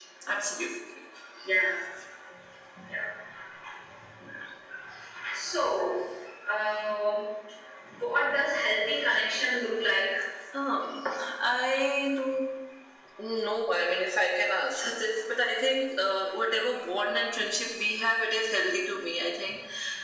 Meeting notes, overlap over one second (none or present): none